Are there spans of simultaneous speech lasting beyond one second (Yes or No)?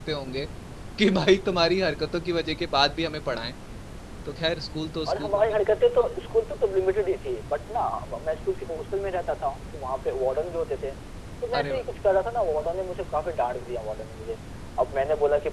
No